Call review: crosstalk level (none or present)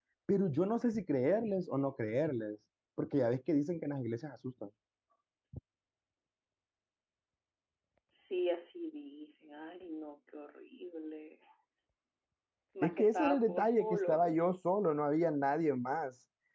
present